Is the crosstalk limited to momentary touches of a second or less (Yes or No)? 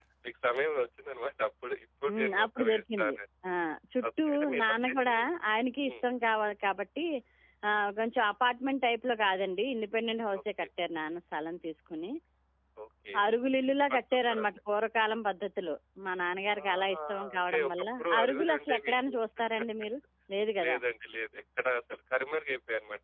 No